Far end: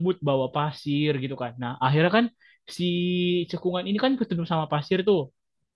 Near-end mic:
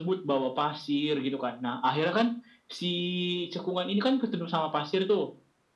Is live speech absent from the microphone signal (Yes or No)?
Yes